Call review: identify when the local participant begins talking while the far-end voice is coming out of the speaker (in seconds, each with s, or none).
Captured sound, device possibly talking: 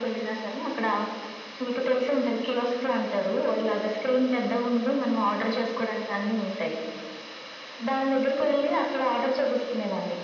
none